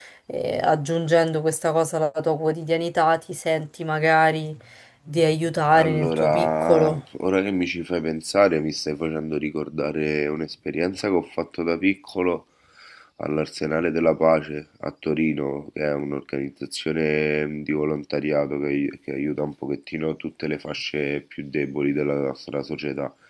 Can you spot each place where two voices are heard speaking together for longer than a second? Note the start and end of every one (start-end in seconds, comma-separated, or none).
5.7-7.0